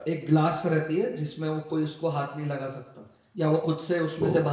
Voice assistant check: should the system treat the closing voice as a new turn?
No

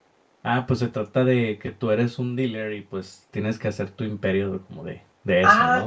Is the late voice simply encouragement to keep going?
No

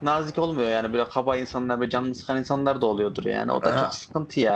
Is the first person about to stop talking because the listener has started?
No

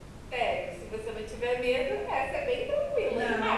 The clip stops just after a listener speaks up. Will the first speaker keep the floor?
No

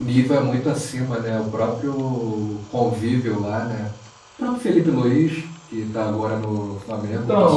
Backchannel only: No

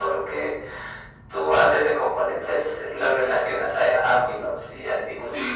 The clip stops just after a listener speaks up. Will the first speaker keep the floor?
No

